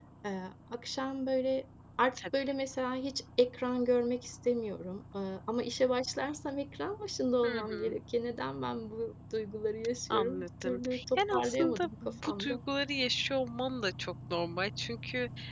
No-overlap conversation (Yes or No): No